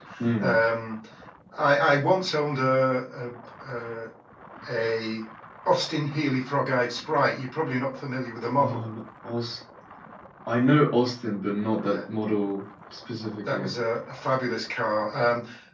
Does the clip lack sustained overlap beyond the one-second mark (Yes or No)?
Yes